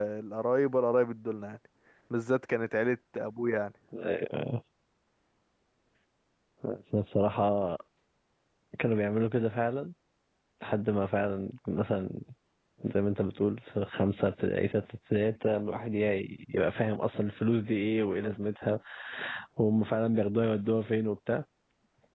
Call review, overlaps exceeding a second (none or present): none